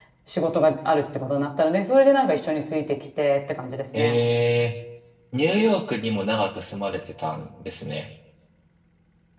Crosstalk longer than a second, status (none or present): none